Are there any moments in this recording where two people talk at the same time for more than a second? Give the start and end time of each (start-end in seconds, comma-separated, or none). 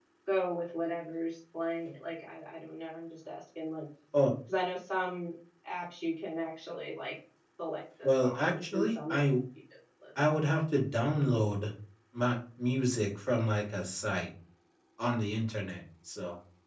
8.0-9.2